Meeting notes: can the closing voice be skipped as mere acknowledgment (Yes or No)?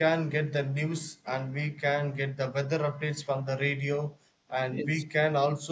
Yes